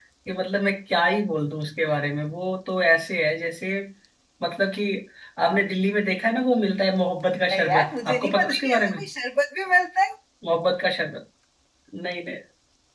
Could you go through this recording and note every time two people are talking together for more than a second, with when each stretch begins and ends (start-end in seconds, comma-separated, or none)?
7.5-9.1